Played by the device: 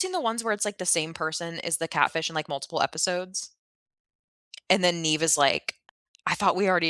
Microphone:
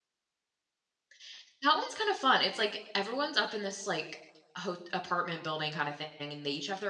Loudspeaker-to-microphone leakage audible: No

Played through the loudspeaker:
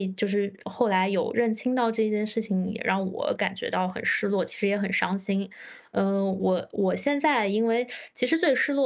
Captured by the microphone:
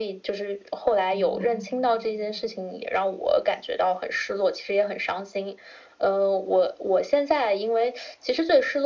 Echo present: Yes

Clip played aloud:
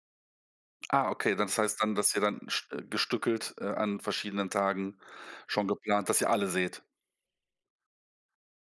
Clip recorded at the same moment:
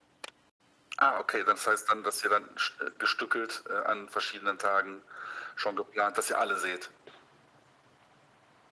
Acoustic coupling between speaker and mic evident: Yes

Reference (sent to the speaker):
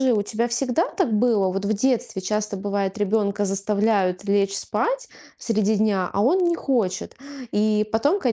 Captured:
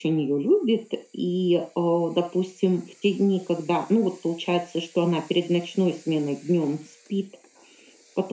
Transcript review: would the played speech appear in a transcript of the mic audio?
No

